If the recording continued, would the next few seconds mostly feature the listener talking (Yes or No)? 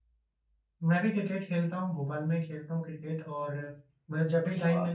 No